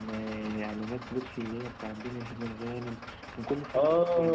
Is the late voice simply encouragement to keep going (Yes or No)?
No